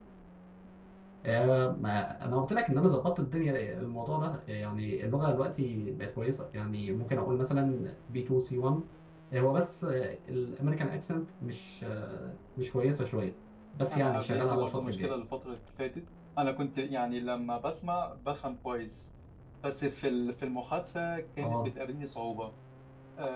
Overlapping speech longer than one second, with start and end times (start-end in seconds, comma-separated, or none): 13.9-15.1